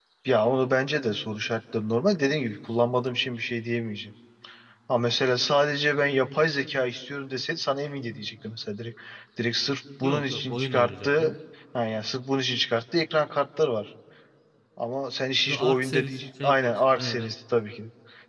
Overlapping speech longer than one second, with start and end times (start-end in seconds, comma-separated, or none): 10.0-11.3, 15.5-17.3